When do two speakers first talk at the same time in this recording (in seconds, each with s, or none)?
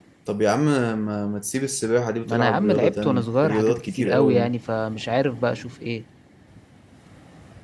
2.3 s